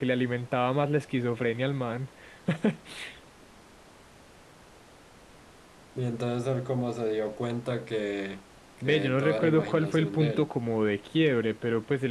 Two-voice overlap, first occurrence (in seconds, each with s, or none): 8.8 s